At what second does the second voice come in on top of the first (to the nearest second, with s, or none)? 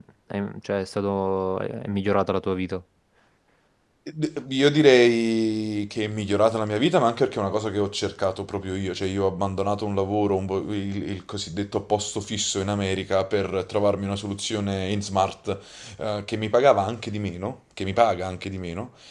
none